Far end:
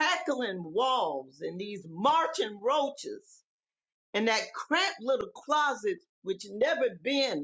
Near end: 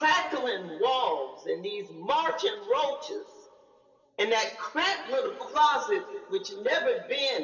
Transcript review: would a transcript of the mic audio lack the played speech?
No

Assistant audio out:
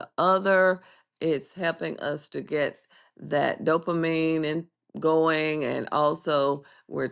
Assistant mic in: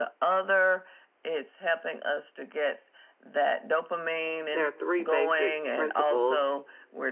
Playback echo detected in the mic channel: Yes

